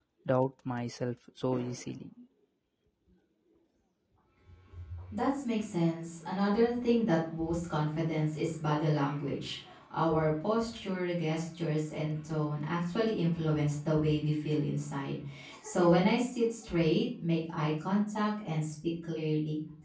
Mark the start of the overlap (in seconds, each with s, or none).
none